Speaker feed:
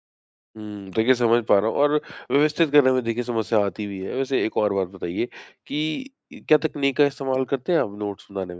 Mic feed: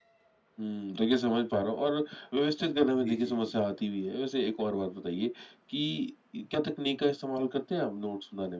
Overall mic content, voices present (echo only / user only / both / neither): both